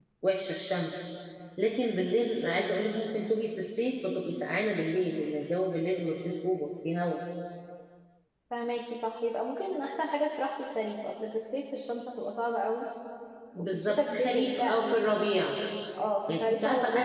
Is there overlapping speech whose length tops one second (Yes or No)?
Yes